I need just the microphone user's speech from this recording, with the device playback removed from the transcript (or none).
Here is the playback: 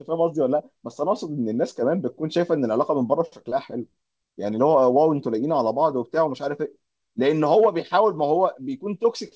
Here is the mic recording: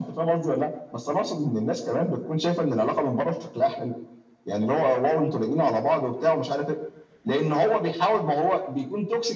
none